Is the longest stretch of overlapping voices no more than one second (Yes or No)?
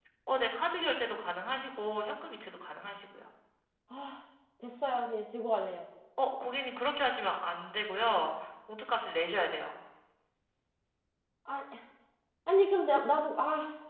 Yes